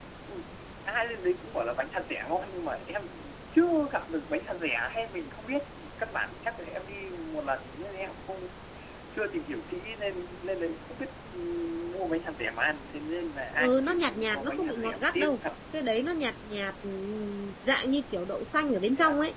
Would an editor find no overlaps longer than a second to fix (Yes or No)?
No